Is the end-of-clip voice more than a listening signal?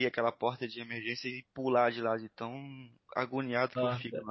Yes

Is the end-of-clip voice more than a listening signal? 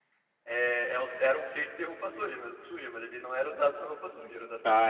Yes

